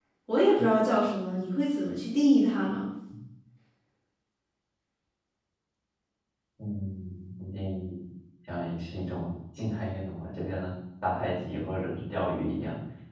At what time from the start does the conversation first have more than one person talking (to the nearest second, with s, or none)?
none